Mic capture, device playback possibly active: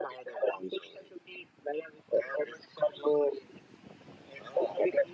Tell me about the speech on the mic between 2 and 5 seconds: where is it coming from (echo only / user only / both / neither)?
echo only